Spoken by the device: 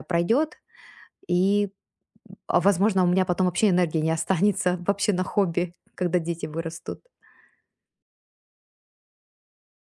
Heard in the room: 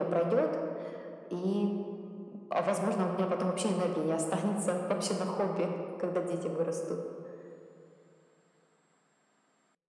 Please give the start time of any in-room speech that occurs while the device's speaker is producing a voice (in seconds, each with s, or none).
none